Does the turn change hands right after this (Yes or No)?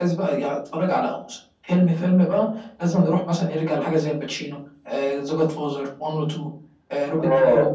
Yes